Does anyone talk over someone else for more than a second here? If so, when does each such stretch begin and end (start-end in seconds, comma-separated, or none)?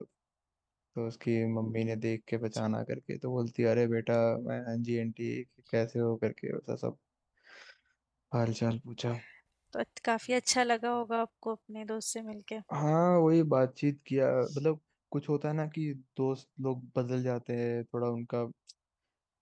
none